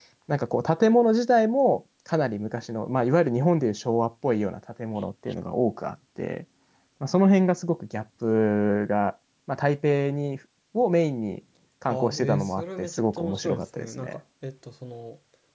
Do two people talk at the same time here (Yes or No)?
Yes